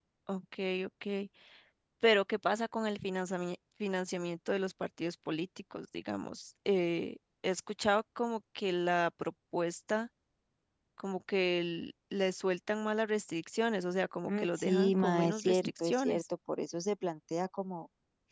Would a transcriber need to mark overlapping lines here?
Yes, from 14.2 s

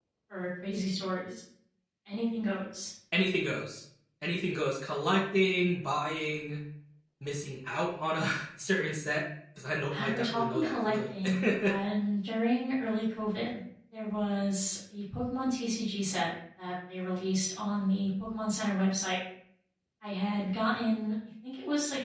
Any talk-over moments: Yes, from 9.9 s

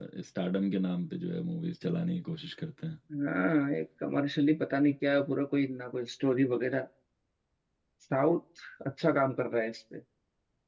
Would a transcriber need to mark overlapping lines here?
No

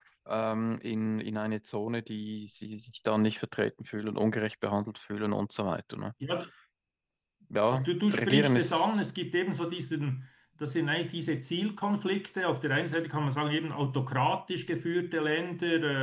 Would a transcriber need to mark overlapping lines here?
Yes, from 7.7 s

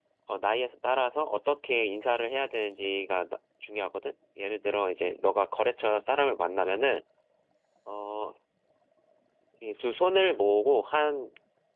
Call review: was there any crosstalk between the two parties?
No

